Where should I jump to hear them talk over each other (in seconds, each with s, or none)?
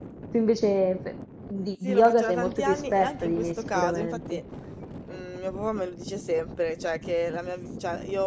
1.8 s